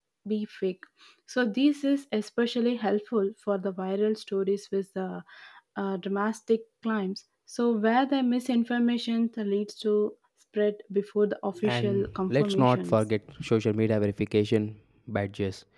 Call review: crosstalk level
present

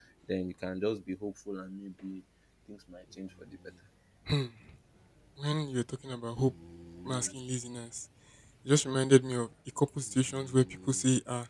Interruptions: none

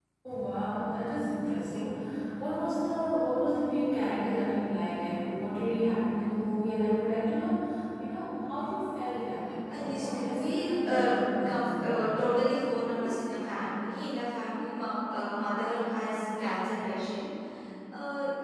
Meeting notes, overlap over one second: present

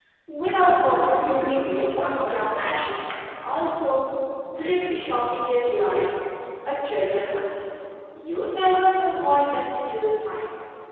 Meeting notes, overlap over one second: present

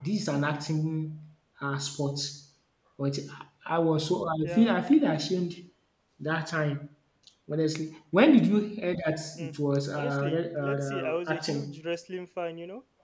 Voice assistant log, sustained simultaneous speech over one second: present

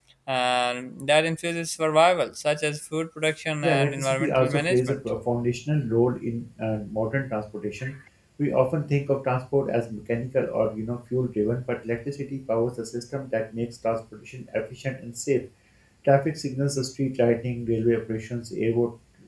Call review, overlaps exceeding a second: present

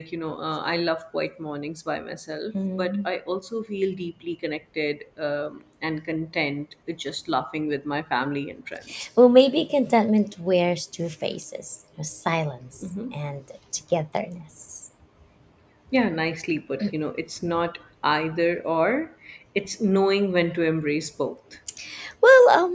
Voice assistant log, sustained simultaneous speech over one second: none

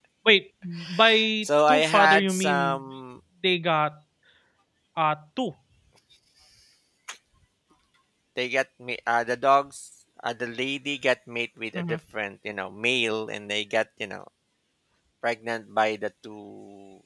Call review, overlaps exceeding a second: present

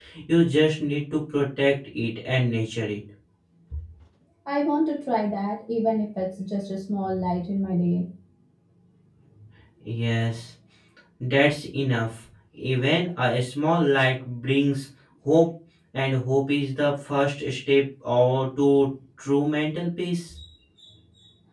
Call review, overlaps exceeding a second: none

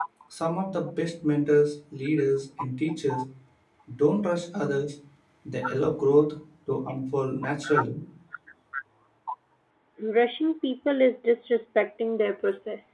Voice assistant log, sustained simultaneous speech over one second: none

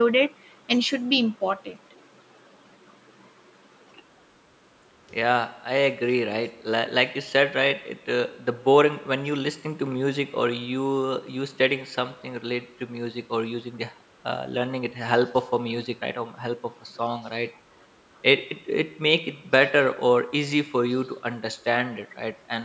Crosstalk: none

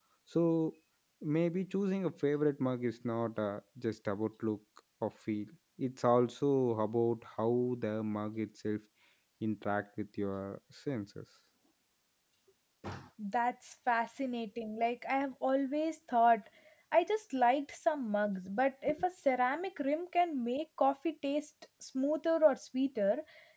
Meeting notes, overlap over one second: none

